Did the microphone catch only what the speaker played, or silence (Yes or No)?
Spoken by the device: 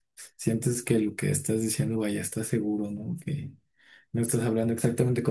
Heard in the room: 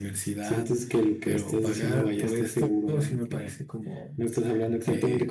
No